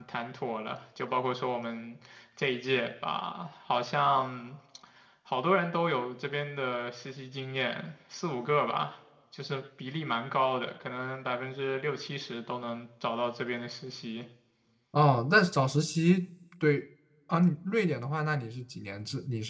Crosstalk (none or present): none